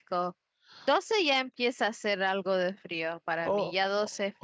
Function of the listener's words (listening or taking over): taking over